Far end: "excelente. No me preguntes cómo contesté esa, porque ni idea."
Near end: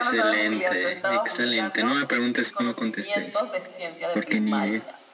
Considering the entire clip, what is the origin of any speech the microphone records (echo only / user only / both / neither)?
both